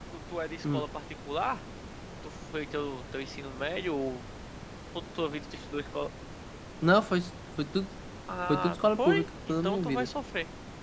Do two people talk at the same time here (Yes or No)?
Yes